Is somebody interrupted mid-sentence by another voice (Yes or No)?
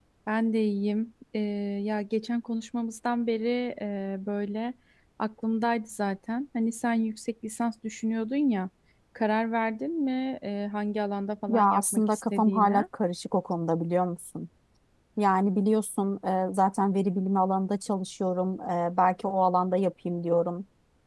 Yes